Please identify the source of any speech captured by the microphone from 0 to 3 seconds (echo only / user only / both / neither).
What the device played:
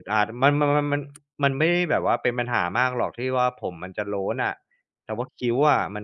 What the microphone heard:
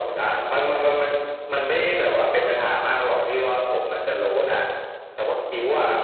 echo only